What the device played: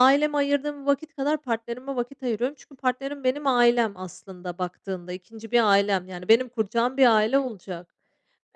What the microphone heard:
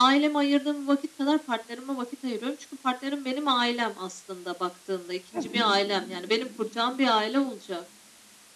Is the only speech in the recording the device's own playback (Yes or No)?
No